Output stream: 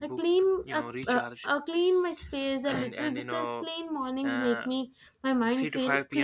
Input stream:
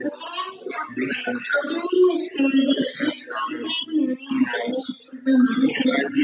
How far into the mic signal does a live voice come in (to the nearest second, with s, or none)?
none